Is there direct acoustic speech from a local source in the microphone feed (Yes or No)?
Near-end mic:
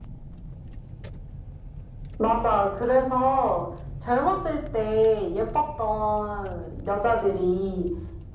No